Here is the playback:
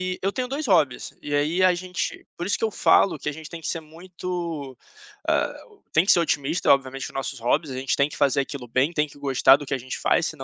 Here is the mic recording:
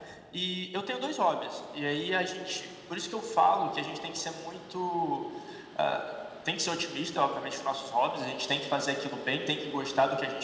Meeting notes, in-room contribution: none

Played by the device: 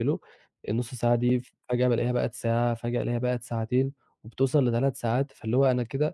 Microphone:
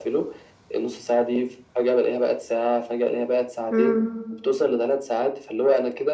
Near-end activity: present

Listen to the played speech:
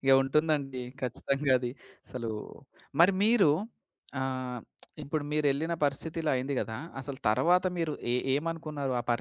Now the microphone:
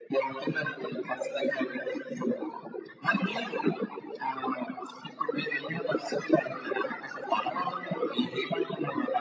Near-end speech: none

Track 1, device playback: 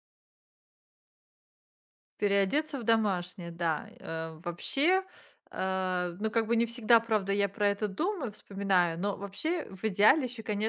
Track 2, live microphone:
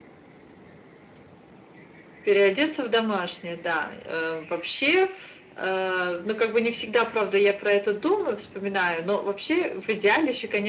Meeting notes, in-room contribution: none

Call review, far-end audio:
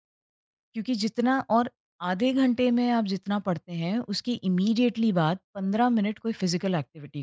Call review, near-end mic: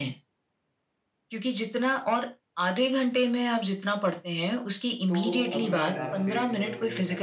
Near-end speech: present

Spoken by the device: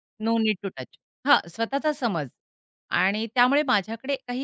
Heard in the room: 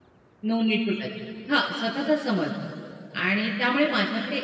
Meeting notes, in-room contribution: none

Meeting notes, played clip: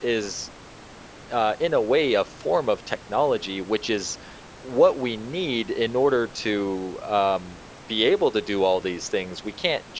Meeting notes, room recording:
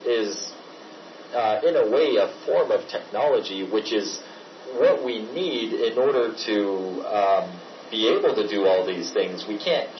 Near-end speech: none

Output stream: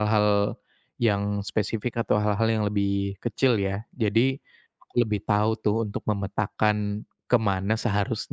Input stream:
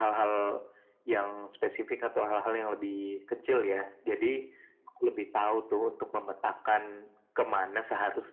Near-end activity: none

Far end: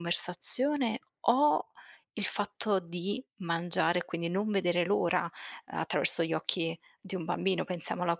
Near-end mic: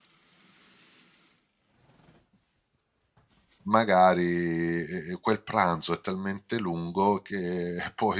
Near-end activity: present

